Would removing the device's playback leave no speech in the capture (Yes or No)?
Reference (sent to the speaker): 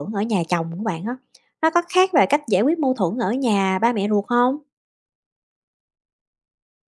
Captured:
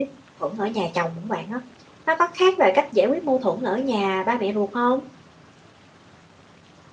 Yes